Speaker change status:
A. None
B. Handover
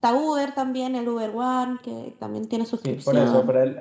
B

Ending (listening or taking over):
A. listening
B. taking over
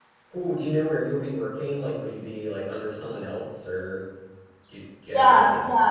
B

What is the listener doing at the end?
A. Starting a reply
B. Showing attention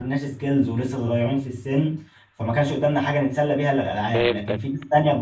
B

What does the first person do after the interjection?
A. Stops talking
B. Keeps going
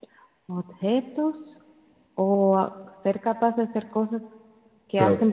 A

